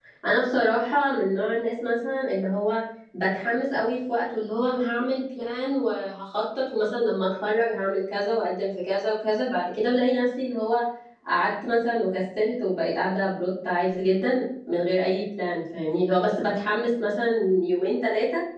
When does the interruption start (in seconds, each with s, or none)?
none